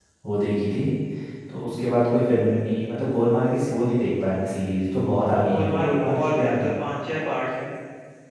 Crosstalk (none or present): present